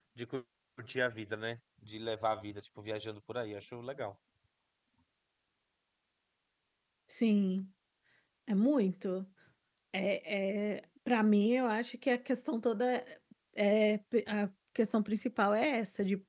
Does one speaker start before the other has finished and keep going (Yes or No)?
No